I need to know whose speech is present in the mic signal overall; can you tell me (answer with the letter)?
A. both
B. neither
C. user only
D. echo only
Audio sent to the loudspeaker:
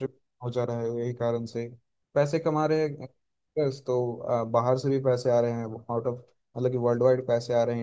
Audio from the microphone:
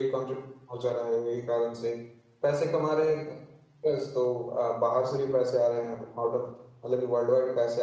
D